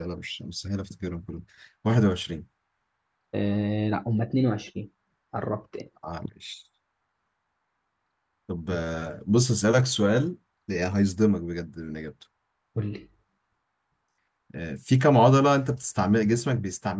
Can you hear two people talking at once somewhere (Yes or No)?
No